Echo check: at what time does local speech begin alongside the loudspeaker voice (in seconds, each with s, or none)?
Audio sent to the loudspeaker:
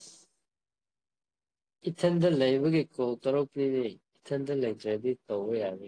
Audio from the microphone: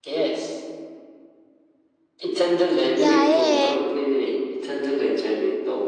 3.0 s